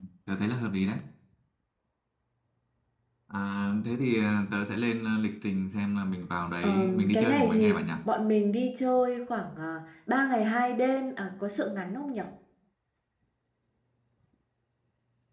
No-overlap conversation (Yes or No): No